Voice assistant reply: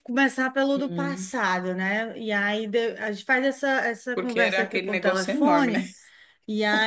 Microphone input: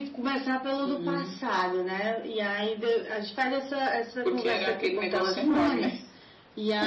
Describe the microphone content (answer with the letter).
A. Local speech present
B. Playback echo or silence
B